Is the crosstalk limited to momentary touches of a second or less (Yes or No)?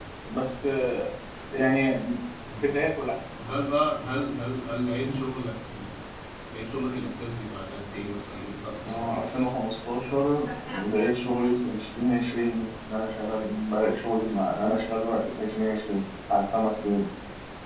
Yes